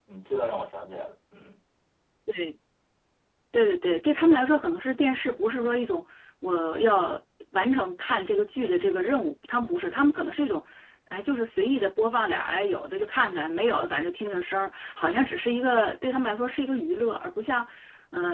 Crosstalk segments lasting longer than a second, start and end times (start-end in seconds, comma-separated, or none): none